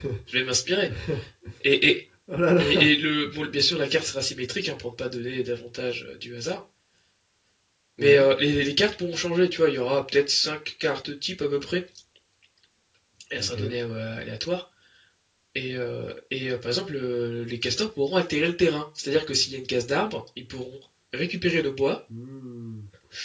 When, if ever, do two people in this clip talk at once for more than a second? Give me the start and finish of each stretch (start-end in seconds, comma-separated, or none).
none